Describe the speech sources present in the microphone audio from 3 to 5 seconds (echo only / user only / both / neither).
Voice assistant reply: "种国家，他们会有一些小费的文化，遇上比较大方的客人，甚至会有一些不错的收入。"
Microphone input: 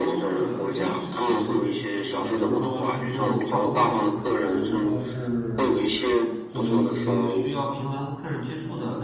both